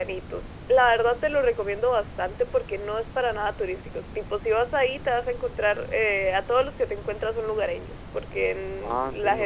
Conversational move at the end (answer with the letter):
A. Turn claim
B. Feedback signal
B